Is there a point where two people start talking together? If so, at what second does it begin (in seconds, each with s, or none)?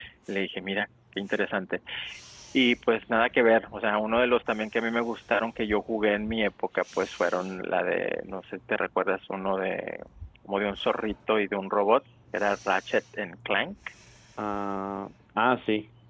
none